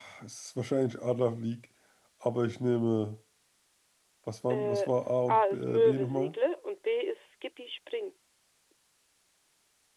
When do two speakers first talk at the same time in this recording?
4.5 s

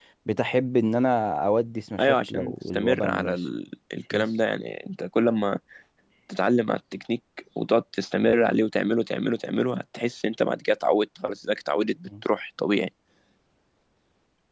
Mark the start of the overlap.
2.0 s

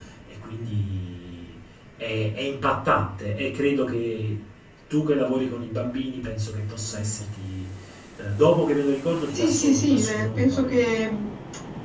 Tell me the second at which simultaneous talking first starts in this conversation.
9.3 s

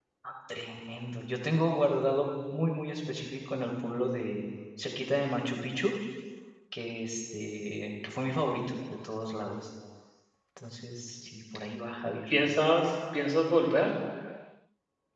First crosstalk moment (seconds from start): none

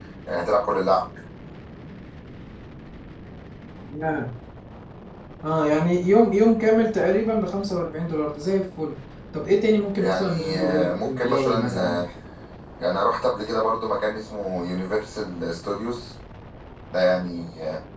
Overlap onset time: 10.0 s

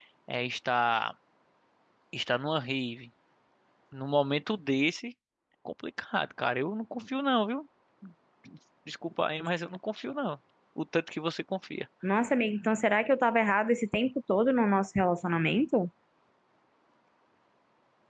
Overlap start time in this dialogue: none

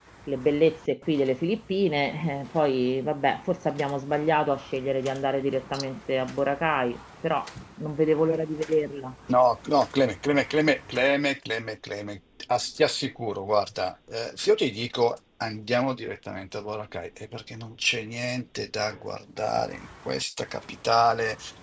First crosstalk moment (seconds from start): none

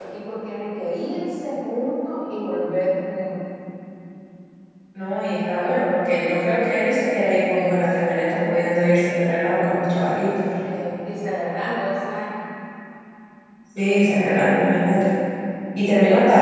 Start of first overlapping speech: none

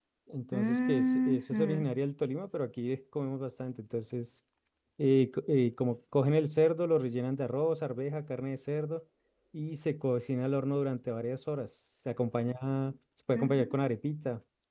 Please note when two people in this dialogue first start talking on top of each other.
0.5 s

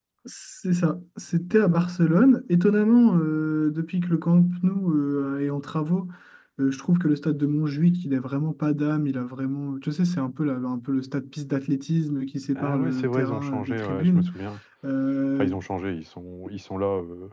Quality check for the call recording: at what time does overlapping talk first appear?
12.6 s

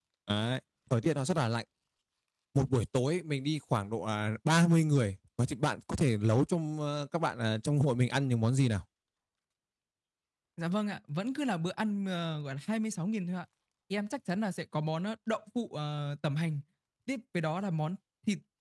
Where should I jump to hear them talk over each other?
none

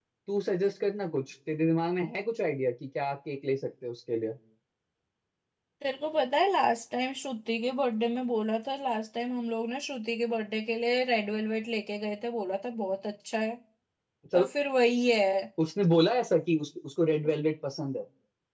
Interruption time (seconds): none

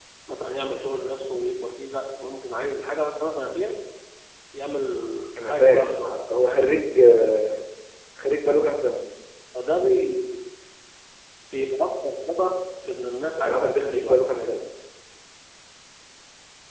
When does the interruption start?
5.4 s

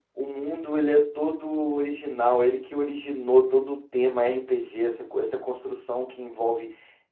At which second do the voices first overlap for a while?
none

